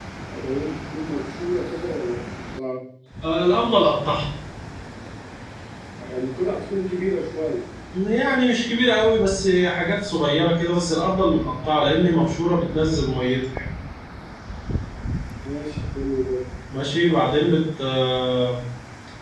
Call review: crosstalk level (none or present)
none